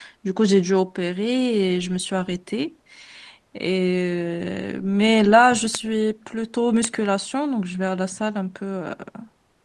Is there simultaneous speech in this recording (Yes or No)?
No